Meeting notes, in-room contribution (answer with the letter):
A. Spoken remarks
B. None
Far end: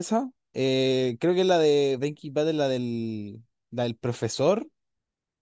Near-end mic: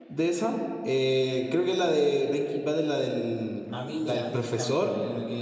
A